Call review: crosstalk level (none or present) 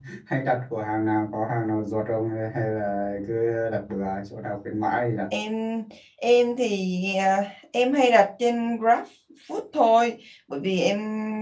none